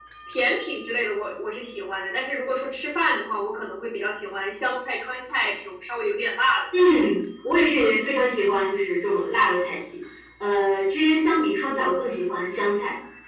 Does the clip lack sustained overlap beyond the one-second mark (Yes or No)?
Yes